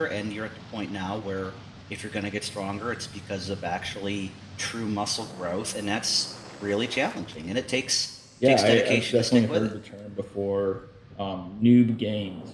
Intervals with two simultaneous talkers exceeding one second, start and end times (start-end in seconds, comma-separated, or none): 8.4-9.7